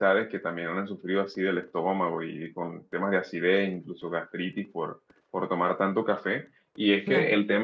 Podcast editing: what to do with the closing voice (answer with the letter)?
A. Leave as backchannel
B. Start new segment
A